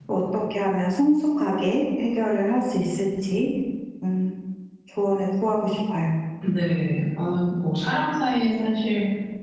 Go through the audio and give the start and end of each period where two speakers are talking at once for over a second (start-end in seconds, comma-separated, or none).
none